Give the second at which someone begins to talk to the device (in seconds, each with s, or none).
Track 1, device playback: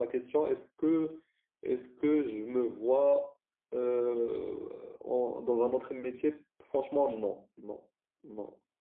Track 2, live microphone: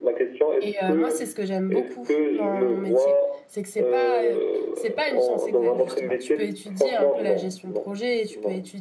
0.6 s